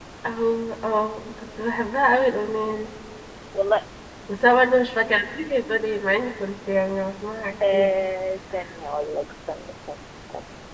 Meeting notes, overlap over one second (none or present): none